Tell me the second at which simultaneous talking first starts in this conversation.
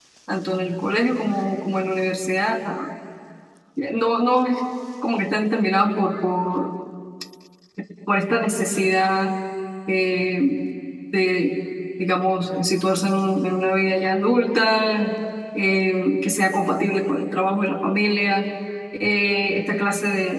none

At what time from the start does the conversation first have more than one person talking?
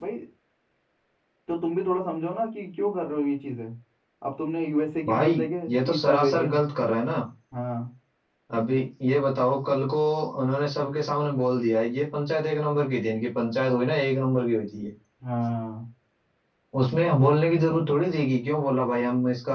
5.1 s

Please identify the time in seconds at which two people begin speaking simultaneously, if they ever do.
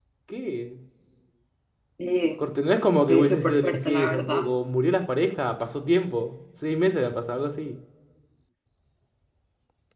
3.1 s

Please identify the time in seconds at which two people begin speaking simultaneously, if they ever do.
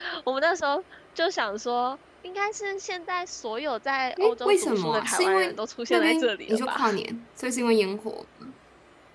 4.2 s

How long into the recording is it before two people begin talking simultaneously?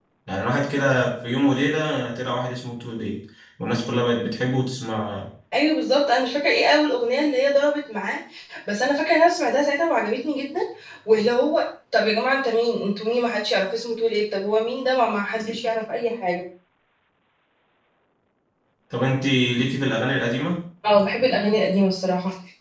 none

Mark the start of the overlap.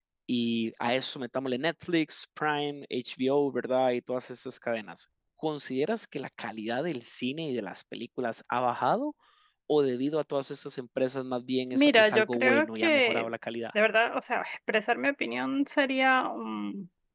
11.7 s

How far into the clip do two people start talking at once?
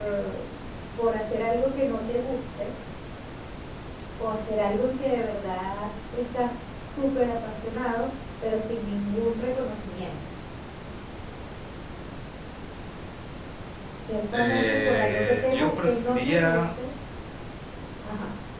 14.3 s

